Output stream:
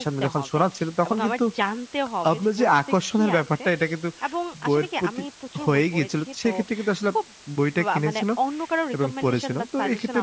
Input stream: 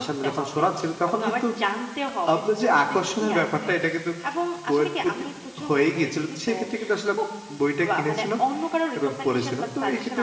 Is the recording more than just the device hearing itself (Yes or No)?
No